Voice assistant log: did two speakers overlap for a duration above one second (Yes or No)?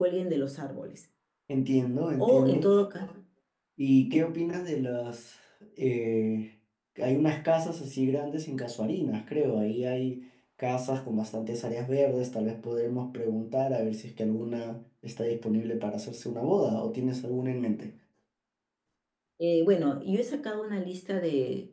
No